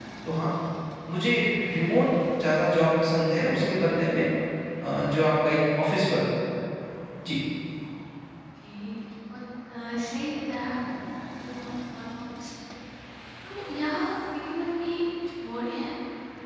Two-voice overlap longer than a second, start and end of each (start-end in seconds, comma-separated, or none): none